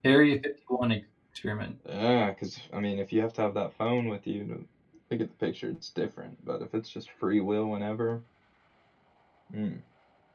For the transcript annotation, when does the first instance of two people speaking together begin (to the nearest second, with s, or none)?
none